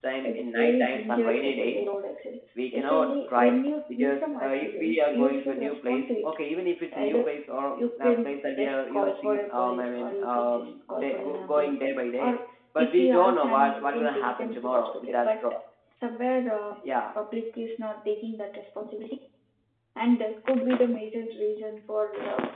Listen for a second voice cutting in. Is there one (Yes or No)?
Yes